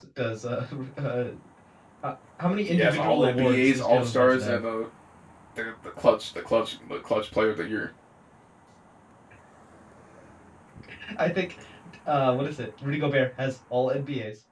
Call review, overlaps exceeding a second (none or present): present